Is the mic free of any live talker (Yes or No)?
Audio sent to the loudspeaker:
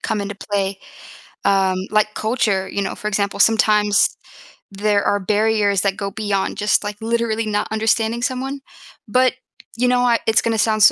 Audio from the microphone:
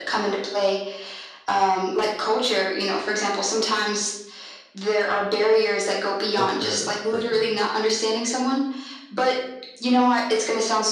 No